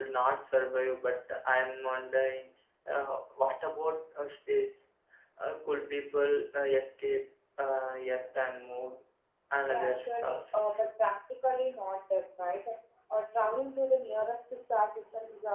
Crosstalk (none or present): present